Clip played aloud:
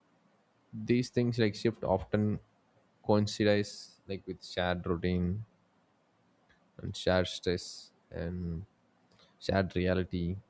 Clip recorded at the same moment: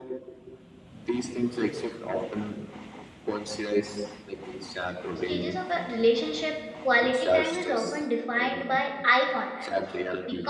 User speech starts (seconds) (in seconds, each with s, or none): 5.1 s